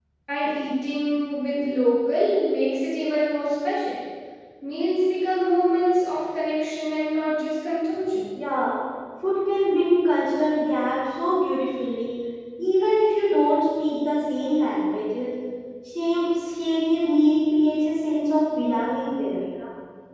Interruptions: none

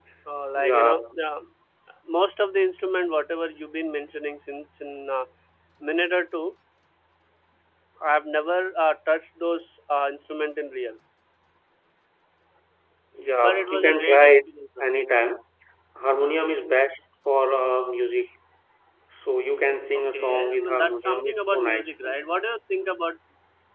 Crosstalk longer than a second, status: present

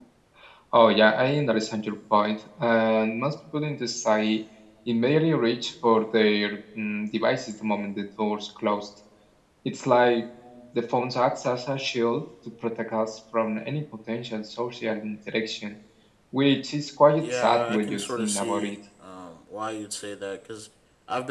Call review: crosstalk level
present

